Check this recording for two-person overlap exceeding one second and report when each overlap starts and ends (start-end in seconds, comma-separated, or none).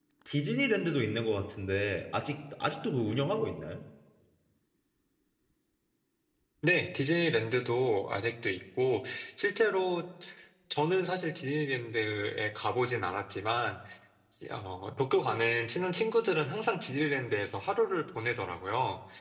none